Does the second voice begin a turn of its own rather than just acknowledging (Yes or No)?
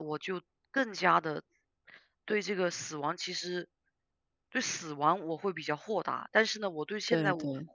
No